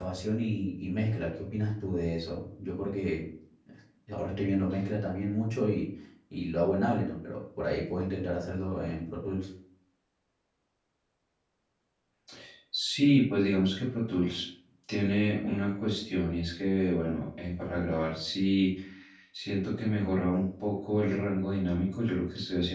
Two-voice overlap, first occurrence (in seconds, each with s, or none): none